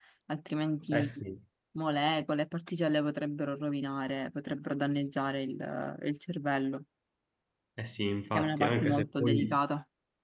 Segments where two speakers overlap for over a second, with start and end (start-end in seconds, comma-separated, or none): 8.3-9.6